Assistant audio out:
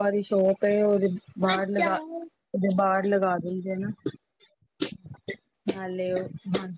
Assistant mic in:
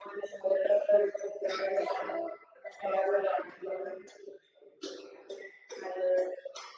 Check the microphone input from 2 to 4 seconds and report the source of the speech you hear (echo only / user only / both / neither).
echo only